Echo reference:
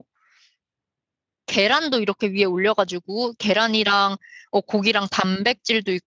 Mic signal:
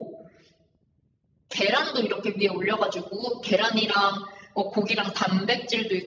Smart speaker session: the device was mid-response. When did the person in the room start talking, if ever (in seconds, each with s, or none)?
none